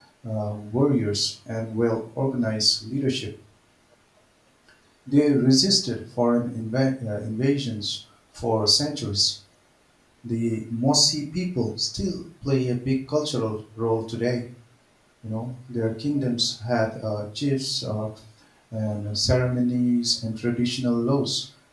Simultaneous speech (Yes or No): No